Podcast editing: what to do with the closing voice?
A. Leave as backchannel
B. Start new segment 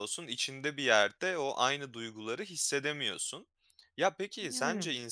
A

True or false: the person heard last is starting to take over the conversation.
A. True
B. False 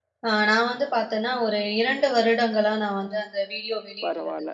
A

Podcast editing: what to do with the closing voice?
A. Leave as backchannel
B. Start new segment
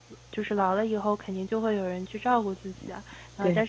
A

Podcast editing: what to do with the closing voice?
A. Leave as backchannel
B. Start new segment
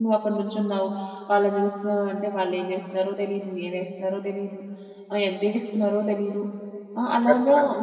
A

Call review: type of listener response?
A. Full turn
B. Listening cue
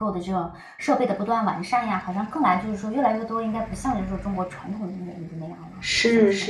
A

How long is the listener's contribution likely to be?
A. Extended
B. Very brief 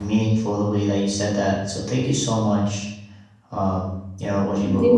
B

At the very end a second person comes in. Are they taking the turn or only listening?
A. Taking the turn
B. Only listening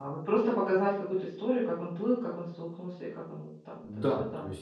A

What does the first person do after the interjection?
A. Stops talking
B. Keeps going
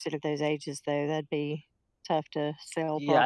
A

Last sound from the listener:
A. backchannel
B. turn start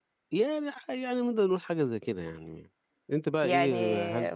B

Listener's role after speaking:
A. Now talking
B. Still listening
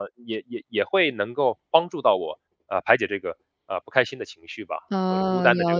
A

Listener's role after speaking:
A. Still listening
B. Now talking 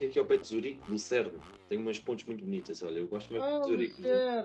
B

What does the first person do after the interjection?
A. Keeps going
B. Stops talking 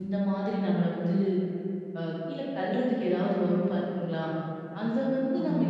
A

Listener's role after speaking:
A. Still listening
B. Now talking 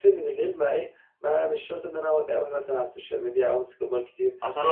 B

